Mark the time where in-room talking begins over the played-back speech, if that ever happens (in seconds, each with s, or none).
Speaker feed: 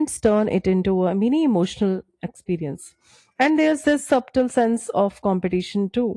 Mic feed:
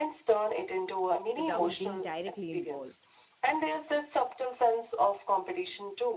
1.3 s